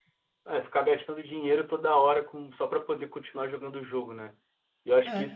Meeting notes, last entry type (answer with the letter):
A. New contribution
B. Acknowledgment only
B